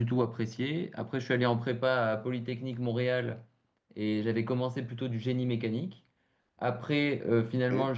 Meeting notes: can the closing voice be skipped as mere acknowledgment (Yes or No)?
Yes